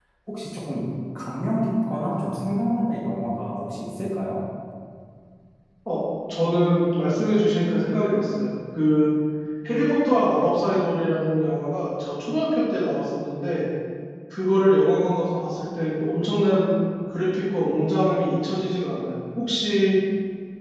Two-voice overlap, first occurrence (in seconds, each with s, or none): none